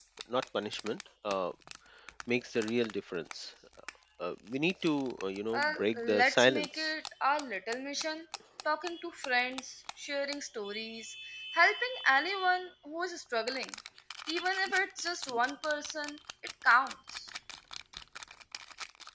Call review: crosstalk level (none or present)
present